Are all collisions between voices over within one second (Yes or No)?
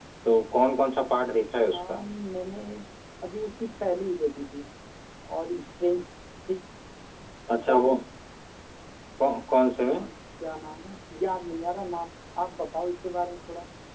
Yes